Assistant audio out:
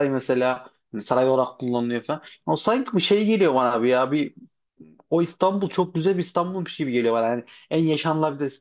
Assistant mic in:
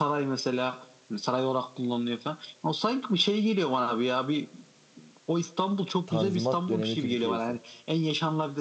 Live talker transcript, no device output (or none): Tanzimat dönemi Türkiye'si.